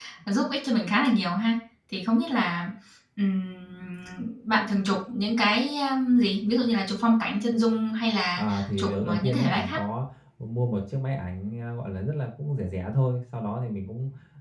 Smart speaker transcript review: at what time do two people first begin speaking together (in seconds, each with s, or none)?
8.4 s